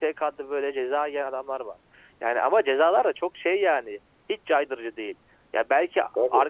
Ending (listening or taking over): listening